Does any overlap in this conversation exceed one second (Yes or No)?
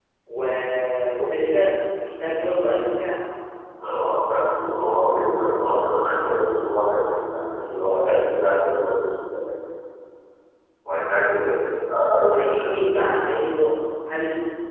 No